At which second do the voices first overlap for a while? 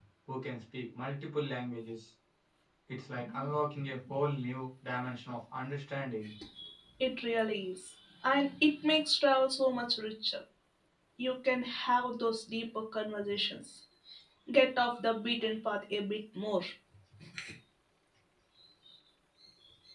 none

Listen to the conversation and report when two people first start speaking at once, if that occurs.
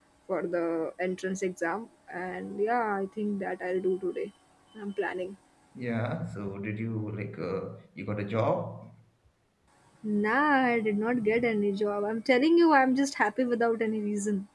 none

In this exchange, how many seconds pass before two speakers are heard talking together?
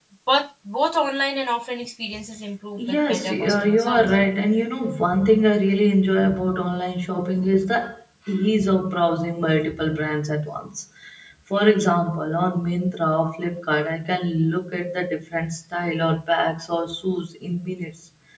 2.8 s

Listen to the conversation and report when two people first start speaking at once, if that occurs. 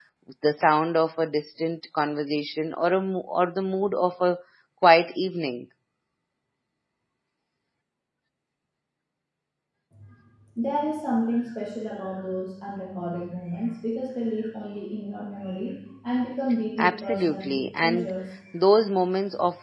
16.8 s

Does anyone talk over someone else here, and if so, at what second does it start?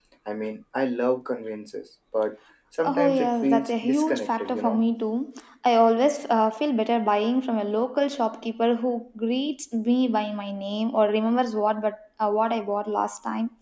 2.8 s

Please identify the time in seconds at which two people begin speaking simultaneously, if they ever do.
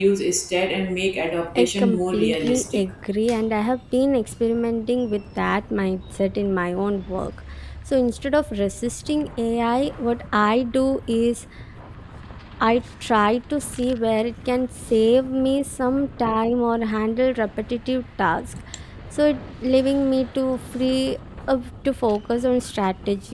1.6 s

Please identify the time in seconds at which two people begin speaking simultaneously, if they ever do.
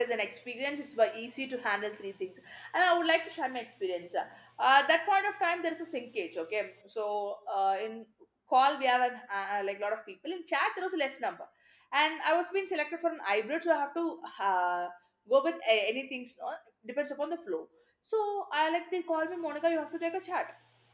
none

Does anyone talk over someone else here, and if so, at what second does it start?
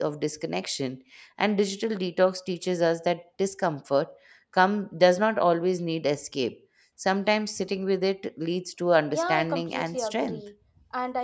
9.1 s

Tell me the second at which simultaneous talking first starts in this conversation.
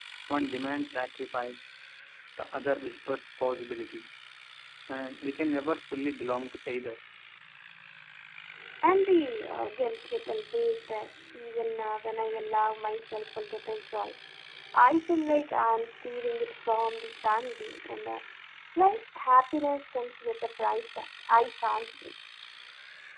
none

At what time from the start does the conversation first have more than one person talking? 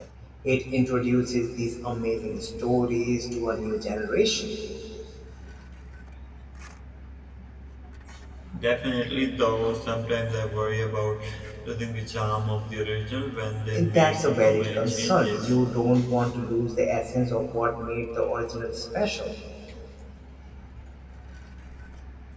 13.7 s

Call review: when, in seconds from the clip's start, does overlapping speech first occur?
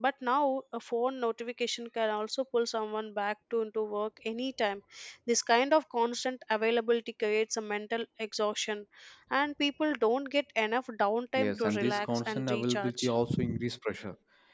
11.4 s

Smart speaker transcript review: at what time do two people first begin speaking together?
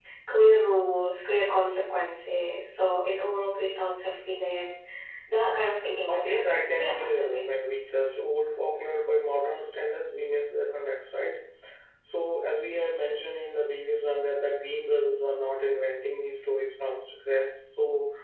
6.1 s

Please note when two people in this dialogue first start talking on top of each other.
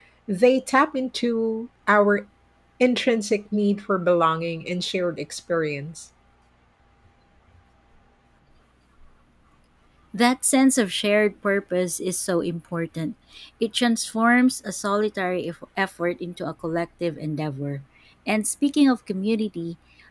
none

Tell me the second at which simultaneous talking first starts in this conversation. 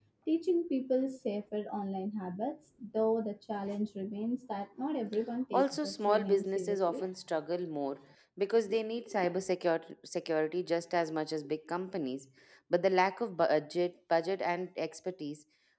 5.5 s

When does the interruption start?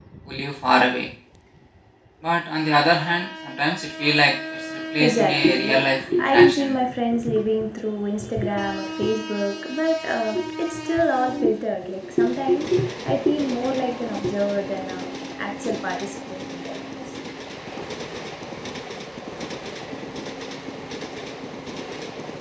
5.0 s

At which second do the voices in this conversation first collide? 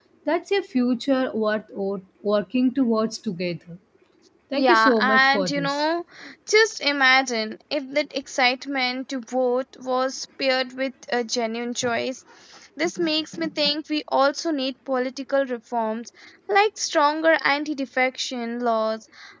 4.5 s

